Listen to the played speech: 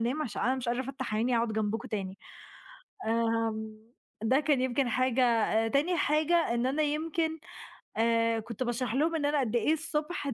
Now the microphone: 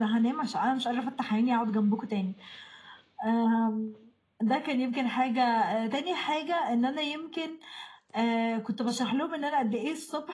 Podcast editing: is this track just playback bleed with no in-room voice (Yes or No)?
Yes